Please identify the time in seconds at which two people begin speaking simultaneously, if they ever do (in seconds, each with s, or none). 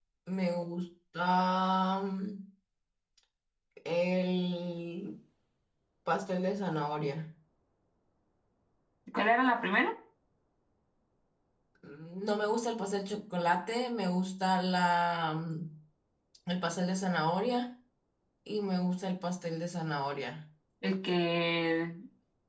none